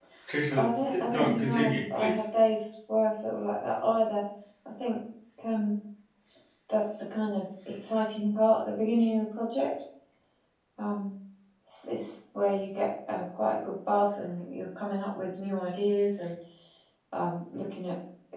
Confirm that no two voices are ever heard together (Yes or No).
No